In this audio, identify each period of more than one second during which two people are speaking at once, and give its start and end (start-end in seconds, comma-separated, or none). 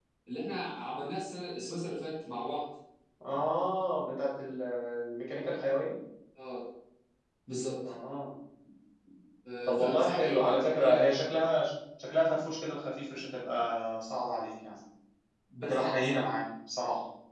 9.7-10.9